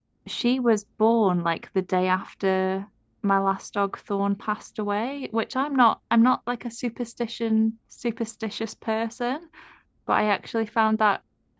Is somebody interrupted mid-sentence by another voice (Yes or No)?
No